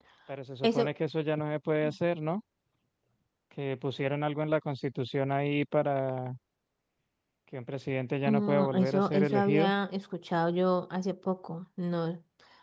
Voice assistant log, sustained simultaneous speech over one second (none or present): present